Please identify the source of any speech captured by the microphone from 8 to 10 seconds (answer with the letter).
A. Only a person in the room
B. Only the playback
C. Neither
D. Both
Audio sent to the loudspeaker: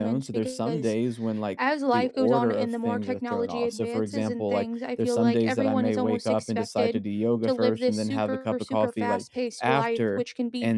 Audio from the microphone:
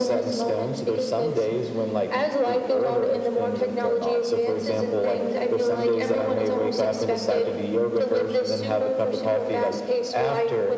B